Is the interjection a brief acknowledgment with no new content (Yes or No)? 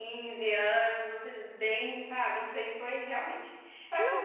Yes